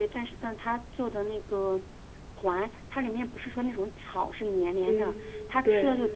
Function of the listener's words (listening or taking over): listening